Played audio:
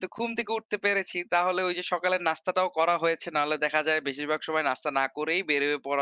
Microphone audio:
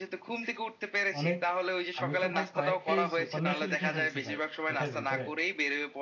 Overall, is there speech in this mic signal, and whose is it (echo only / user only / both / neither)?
both